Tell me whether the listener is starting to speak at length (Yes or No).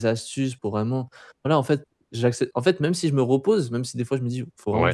No